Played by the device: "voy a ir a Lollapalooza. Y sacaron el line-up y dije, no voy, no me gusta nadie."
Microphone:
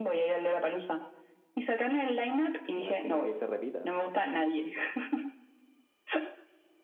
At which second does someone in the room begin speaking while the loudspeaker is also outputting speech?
2.7 s

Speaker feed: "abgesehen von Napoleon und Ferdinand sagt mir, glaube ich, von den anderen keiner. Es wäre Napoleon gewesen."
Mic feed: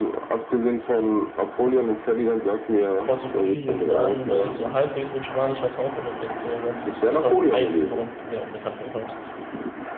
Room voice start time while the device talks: 3.0 s

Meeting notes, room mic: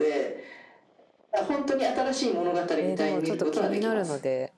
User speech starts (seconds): 2.8 s

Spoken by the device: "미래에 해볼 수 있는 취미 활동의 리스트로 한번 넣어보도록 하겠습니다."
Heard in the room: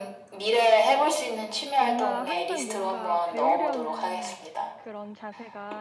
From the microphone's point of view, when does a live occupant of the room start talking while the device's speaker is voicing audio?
1.8 s

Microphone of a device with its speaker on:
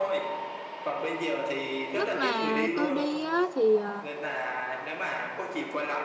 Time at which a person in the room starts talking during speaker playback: 1.9 s

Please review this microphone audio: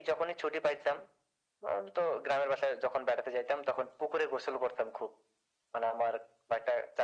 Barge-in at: none

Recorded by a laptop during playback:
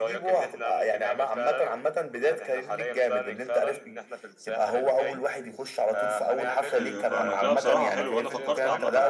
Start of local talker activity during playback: 6.8 s

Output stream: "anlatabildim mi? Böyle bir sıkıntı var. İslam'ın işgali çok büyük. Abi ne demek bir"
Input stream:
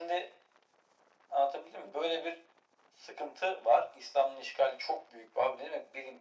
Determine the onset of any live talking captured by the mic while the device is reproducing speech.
none

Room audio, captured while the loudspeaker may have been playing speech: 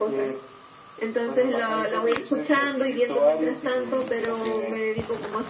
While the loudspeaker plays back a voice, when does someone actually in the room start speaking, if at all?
none

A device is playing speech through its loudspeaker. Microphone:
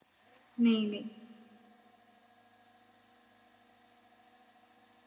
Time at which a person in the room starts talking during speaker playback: 0.6 s

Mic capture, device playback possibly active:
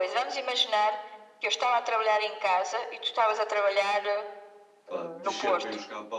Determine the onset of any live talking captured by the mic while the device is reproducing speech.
4.9 s

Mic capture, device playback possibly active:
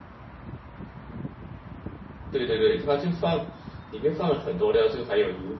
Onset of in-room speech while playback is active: 2.3 s

